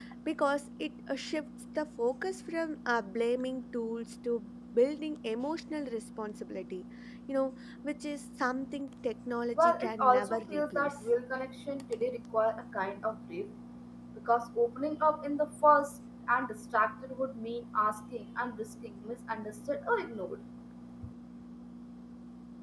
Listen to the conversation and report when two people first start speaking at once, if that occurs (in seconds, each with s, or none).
9.6 s